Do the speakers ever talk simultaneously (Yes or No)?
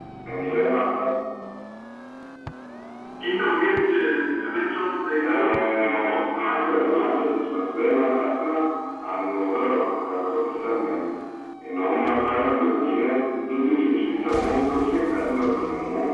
Yes